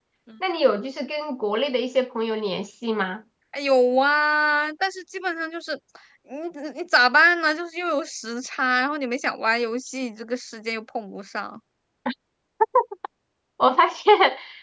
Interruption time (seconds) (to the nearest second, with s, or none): none